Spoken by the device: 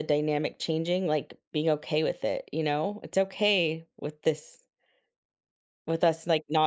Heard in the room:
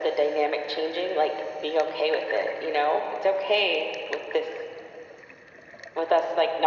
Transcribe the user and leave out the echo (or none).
none